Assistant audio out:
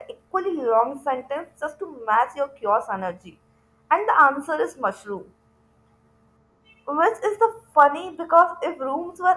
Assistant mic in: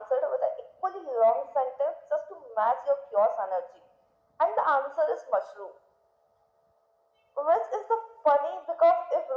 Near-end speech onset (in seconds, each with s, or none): none